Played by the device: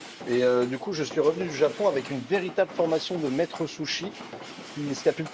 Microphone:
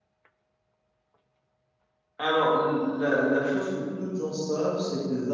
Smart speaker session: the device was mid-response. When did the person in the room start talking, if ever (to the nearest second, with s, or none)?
2 s